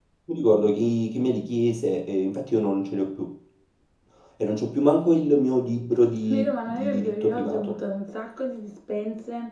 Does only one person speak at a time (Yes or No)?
No